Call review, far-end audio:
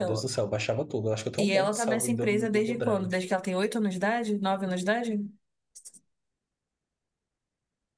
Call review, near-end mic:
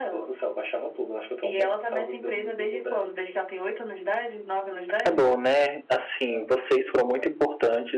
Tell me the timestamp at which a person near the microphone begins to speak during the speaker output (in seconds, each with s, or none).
4.9 s